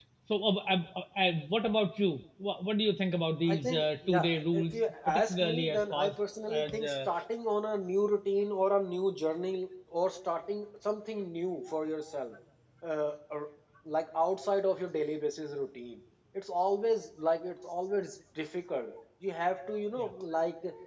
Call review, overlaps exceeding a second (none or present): present